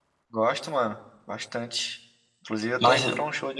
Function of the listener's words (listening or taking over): listening